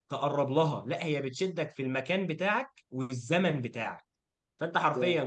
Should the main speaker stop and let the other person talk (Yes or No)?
No